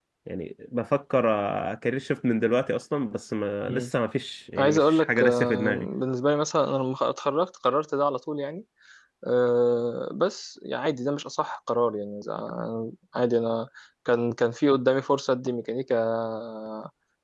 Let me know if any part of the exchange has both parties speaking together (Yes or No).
Yes